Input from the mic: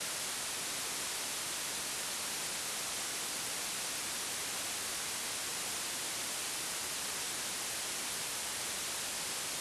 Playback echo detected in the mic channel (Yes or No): No